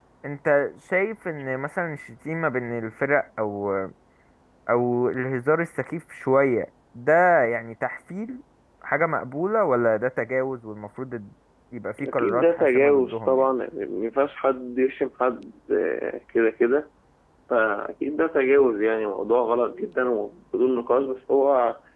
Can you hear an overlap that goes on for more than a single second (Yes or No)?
Yes